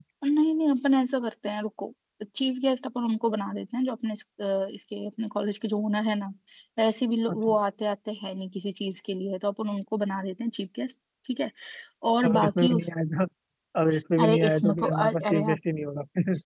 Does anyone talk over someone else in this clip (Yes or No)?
Yes